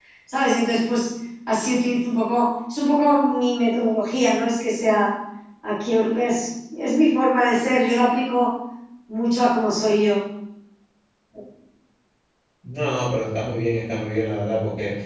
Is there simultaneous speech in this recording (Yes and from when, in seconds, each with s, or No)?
No